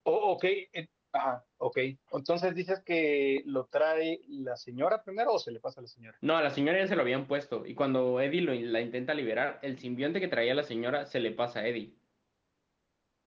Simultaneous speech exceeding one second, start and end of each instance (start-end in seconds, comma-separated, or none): none